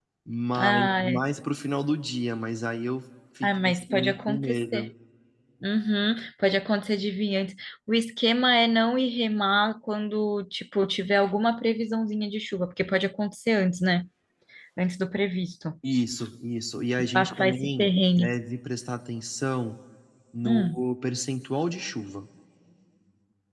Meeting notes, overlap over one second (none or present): present